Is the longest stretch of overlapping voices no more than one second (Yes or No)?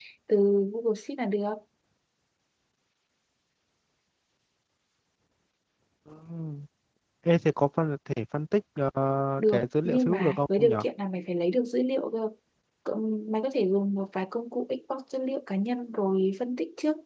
No